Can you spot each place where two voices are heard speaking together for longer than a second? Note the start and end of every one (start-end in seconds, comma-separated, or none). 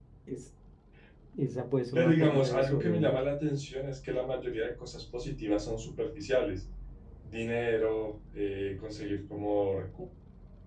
1.9-3.2